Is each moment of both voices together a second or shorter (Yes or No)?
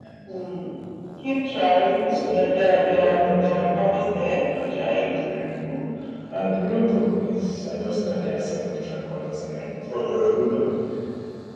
No